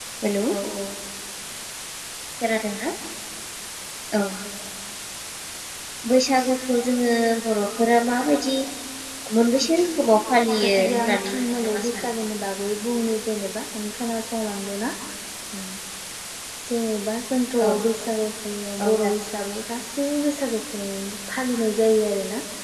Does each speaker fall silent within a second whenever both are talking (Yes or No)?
No